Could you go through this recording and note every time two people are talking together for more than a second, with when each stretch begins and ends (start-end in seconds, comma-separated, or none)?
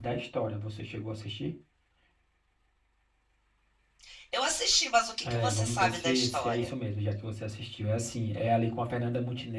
5.2-6.7